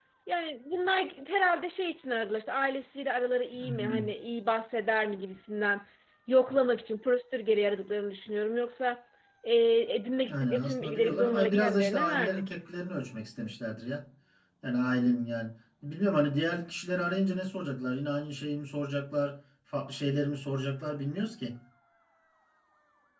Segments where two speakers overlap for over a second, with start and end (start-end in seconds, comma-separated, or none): 10.3-12.5